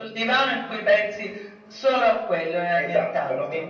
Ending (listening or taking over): taking over